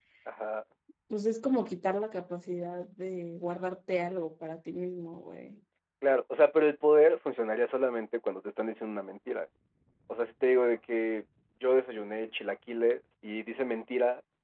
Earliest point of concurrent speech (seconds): none

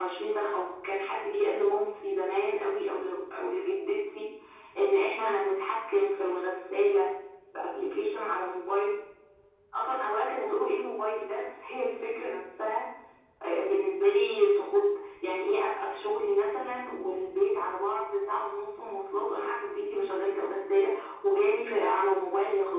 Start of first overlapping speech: none

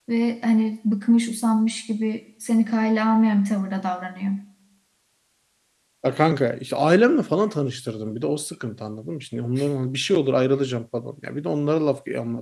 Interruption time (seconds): none

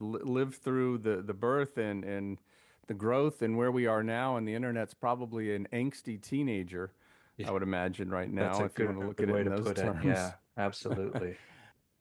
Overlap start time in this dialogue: 8 s

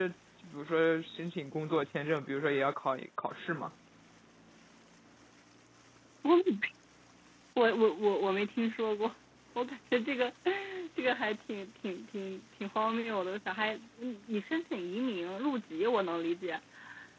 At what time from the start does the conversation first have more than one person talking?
none

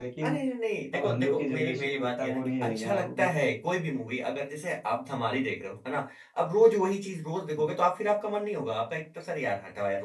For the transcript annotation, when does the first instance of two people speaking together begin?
1 s

